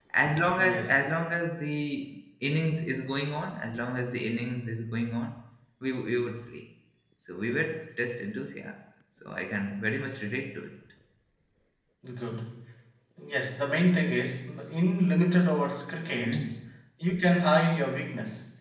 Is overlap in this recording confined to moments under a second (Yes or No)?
Yes